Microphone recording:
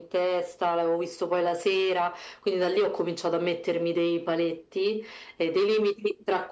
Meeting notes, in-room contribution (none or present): none